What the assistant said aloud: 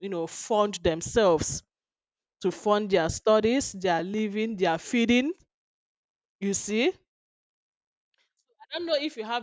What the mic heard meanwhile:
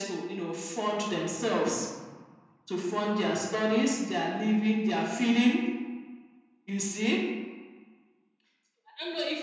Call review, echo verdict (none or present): present